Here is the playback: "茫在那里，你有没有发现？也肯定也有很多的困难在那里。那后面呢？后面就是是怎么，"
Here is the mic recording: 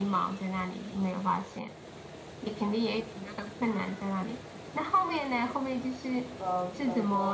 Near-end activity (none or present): present